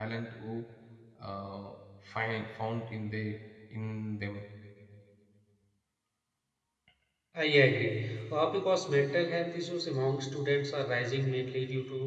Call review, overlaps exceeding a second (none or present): none